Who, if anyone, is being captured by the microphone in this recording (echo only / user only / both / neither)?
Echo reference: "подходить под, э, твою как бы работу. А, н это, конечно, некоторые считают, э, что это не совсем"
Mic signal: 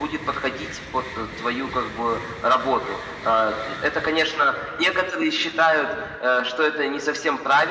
echo only